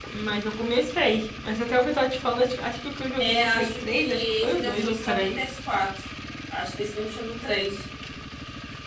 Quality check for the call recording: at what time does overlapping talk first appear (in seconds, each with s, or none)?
3.2 s